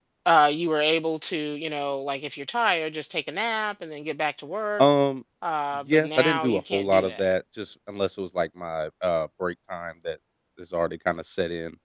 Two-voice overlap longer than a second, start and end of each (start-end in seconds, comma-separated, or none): 5.9-7.3